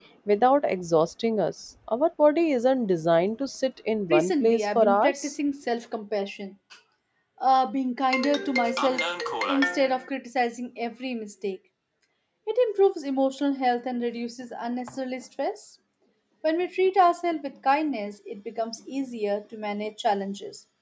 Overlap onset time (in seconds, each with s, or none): 4.1 s